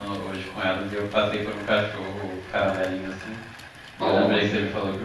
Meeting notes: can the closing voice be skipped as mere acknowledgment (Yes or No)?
Yes